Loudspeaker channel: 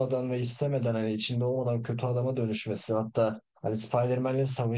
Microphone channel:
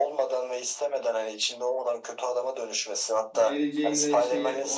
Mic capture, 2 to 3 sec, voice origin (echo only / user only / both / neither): echo only